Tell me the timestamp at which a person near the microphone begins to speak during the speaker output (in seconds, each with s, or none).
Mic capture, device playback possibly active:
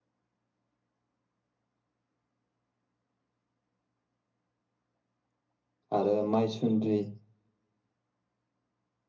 6.0 s